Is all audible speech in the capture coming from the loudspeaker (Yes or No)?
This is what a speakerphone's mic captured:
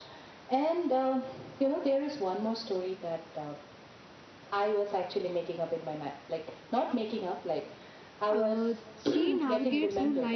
No